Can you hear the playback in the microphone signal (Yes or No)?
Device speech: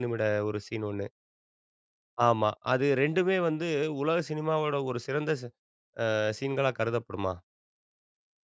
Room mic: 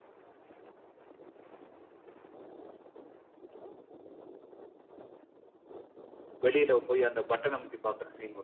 No